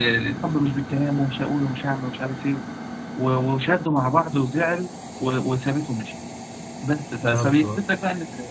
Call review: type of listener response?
listening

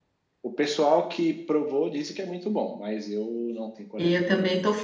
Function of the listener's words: taking over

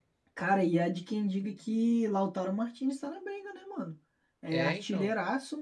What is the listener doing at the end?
listening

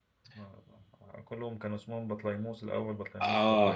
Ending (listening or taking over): taking over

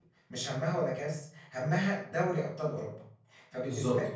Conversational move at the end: listening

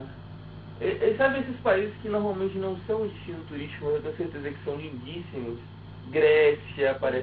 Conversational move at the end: taking over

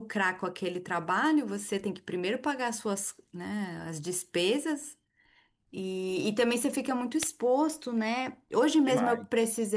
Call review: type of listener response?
listening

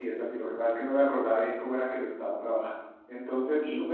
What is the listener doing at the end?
listening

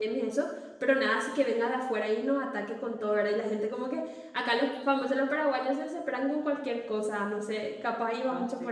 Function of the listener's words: taking over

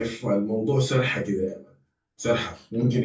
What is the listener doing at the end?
listening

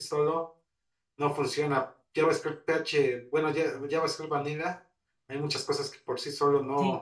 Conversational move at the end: taking over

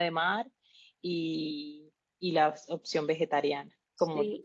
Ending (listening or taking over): taking over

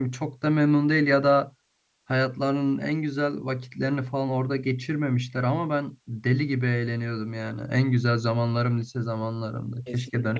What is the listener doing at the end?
taking over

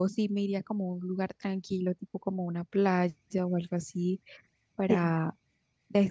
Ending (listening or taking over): listening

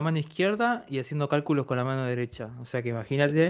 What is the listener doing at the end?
listening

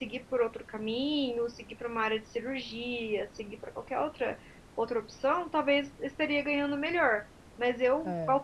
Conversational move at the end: listening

